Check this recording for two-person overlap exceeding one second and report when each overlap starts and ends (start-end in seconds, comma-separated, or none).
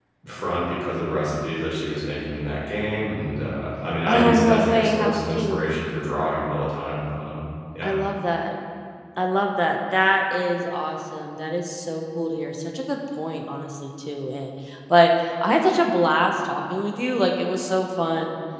4.1-5.6